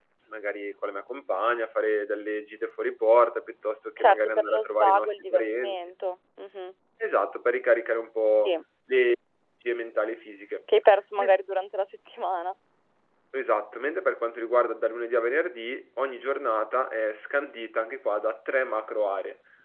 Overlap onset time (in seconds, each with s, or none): 4.0 s